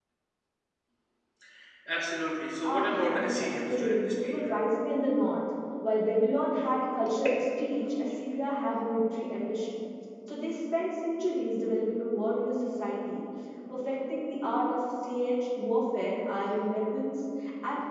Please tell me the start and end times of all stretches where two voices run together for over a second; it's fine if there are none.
2.6-4.4

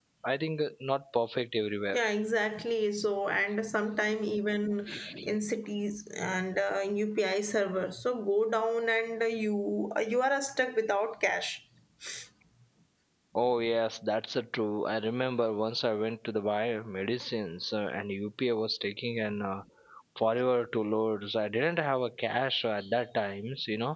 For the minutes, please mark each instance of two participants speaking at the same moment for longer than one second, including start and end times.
none

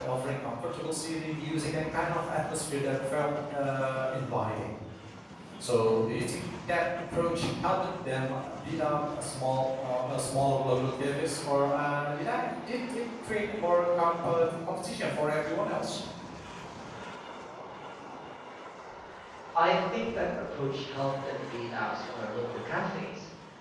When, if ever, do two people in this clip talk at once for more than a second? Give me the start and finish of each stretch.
none

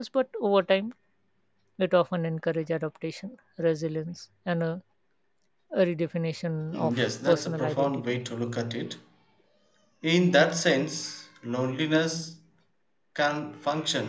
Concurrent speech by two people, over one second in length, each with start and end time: 6.7-8.2

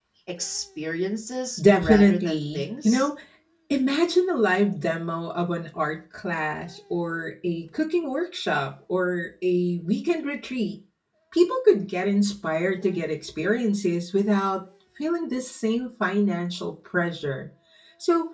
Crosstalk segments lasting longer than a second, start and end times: 1.8-3.1

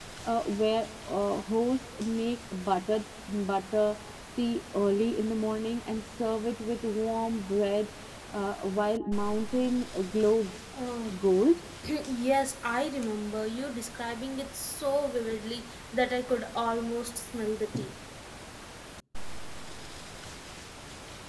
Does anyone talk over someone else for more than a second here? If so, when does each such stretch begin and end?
none

